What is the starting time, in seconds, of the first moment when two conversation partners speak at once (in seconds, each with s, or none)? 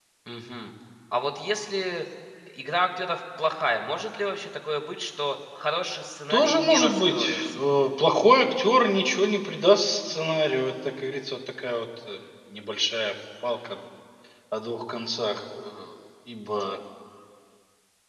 6.3 s